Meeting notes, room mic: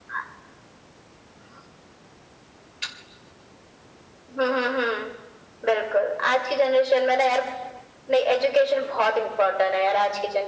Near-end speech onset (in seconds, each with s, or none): none